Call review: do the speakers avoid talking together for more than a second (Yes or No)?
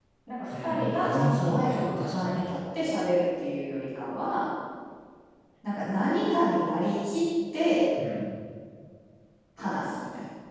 No